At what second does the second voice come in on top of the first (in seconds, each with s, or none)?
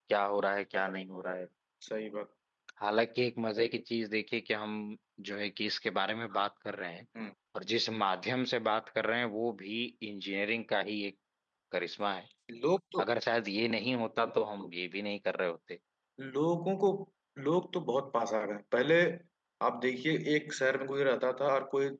none